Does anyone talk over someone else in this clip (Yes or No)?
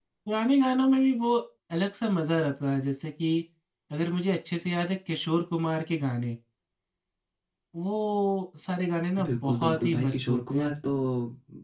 Yes